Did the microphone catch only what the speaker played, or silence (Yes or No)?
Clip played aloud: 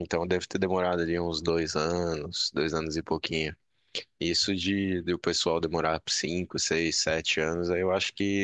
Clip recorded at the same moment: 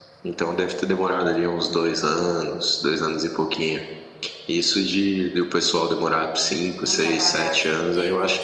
No